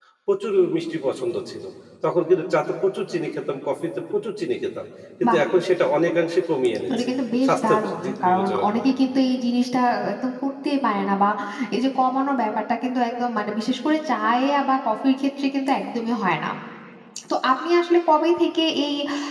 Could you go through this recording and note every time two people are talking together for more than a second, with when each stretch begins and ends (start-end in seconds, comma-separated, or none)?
7.5-8.9